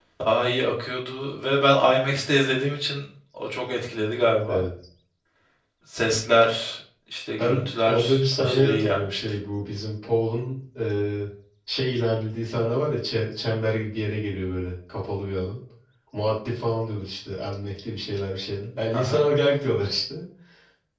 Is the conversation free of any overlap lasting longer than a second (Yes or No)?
No